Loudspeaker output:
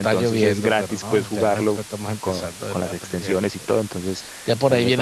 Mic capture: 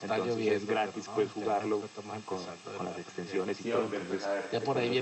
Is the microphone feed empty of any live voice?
No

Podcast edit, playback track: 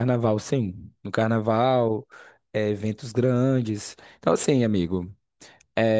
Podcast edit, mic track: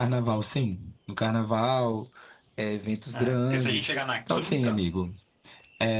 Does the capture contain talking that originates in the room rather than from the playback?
Yes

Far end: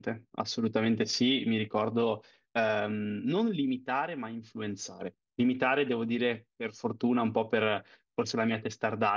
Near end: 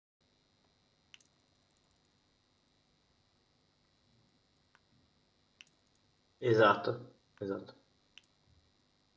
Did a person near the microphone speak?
Yes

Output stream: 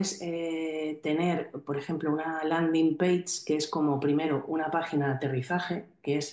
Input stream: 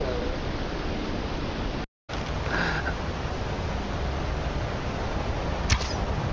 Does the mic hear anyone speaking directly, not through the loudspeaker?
No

